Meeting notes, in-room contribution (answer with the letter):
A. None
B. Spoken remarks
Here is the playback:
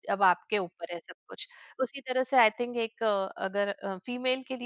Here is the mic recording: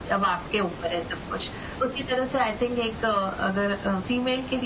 A